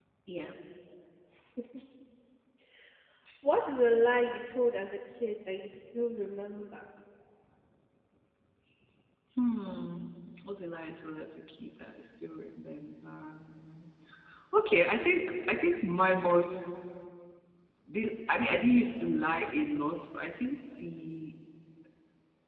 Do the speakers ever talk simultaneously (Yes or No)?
No